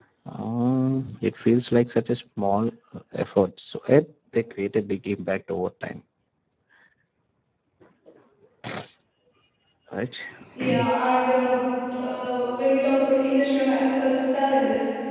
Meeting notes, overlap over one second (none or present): none